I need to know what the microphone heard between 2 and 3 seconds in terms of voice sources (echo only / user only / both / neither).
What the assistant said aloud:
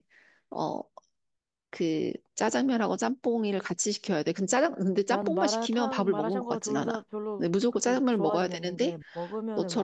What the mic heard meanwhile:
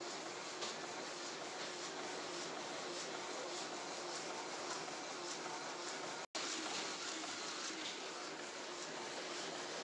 neither